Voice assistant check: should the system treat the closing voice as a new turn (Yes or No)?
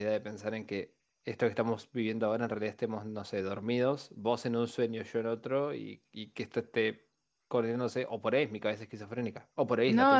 Yes